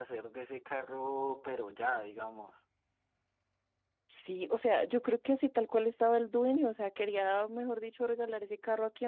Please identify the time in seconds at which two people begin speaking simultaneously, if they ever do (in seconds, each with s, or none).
none